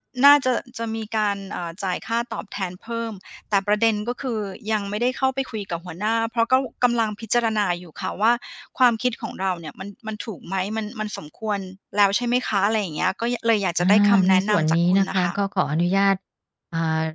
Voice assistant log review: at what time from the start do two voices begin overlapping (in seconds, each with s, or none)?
13.8 s